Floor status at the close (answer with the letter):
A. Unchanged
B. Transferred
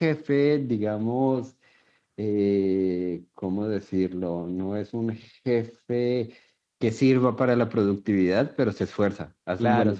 B